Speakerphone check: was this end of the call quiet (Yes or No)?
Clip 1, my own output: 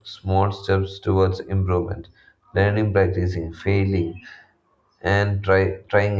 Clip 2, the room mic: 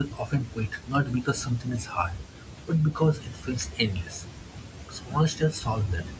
No